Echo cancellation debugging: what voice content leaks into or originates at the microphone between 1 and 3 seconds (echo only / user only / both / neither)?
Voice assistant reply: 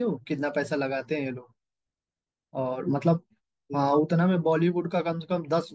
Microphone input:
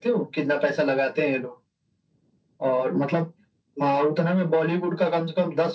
echo only